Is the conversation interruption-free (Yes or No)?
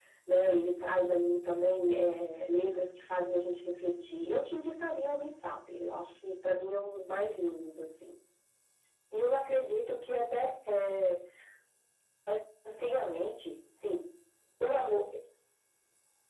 Yes